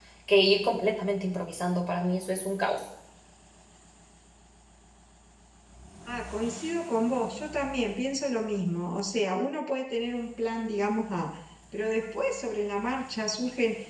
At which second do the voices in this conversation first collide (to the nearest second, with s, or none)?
none